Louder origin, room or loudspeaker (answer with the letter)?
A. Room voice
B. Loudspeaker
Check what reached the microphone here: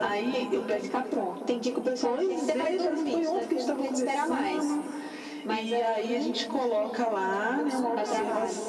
B